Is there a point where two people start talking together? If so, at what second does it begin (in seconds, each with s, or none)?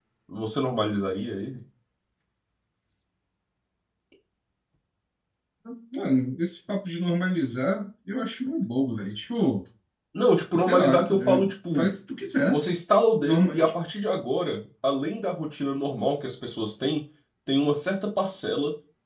10.5 s